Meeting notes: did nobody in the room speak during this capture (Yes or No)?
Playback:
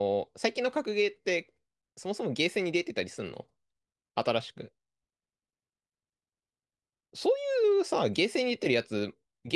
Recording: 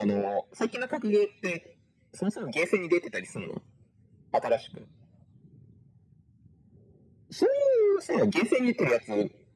Yes